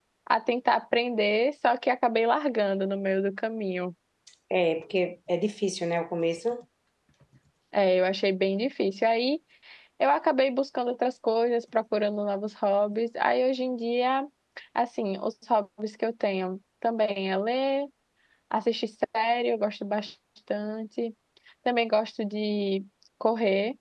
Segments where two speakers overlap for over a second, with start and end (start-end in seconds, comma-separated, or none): none